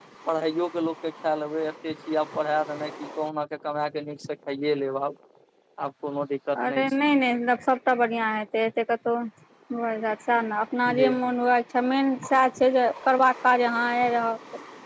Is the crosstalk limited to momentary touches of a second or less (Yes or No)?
Yes